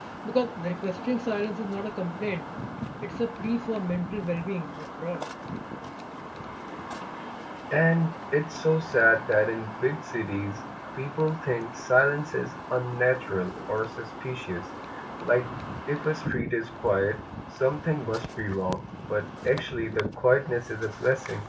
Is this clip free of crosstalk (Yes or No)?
Yes